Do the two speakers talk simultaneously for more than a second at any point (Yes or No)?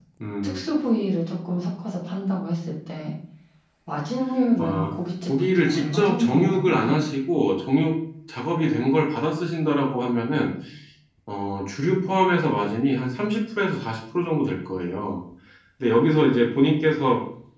Yes